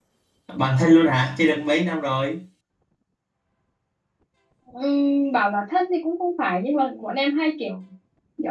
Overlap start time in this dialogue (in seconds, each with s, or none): none